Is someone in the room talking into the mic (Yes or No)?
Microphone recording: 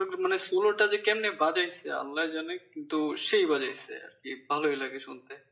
Yes